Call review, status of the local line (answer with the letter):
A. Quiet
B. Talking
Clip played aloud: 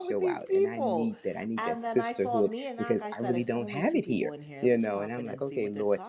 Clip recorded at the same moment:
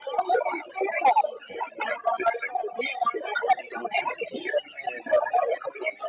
A